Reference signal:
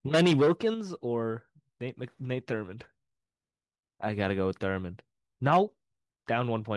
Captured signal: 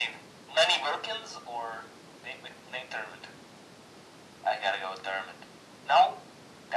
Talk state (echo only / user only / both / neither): echo only